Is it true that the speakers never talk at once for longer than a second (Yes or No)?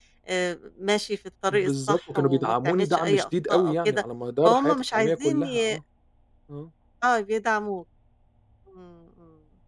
No